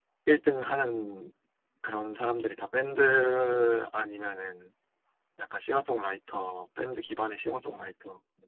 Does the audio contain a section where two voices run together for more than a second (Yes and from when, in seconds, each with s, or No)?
No